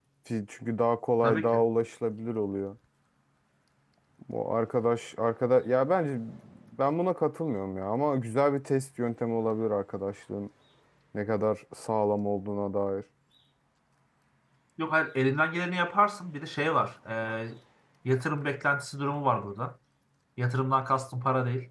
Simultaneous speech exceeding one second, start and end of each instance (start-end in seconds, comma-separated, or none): none